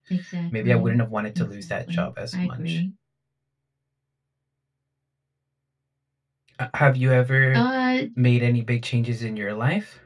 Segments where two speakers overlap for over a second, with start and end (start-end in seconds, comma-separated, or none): 1.4-2.8